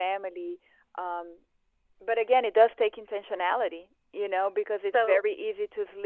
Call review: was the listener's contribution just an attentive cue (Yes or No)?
Yes